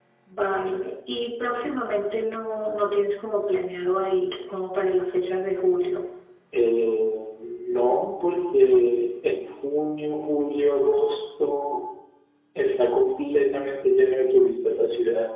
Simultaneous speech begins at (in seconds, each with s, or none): none